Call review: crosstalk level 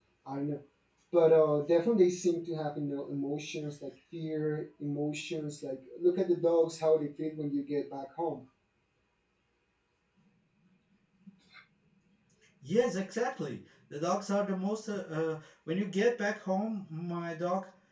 none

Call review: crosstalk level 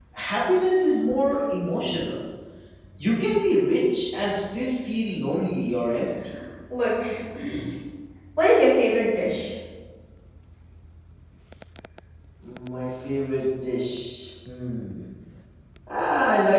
none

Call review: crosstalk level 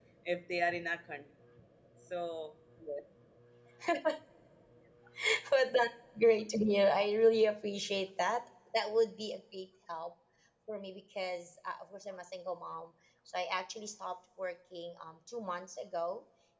none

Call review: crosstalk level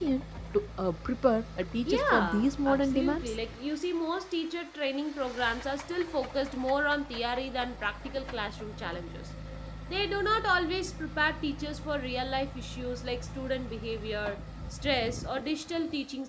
present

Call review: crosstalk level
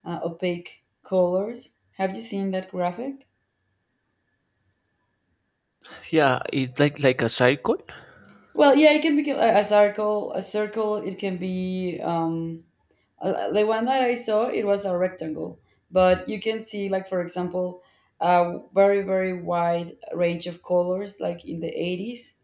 none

